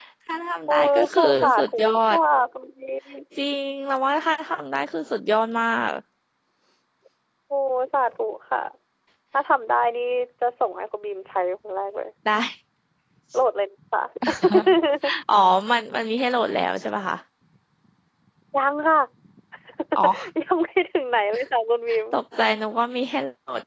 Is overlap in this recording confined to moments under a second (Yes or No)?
No